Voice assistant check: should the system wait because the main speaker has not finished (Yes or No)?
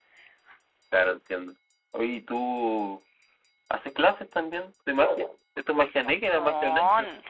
No